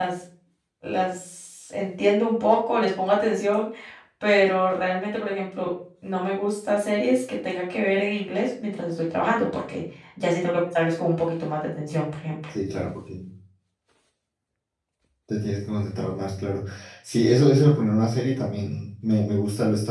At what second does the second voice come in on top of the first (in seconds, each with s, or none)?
none